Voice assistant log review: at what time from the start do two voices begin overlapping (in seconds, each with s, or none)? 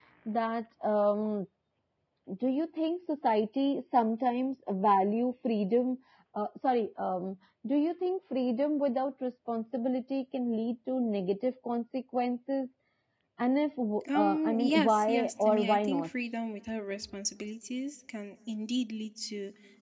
14.2 s